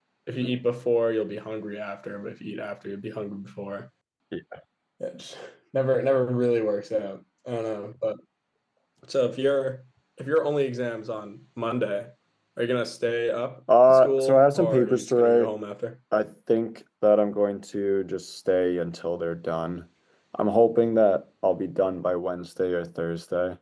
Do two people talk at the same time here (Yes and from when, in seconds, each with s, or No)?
Yes, from 13.7 s